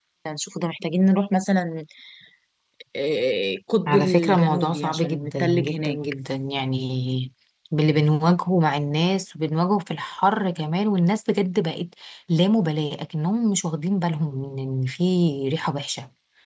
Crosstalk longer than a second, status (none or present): present